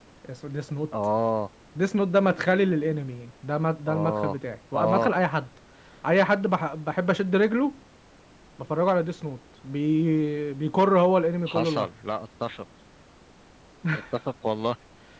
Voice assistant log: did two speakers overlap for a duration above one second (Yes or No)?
No